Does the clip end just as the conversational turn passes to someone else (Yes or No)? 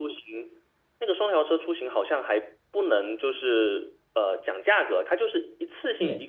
Yes